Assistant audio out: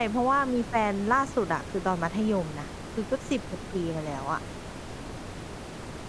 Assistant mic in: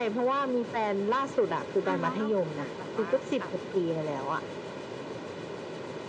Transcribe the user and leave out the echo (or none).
อาแล้วเราเคยแบบว่าแบบ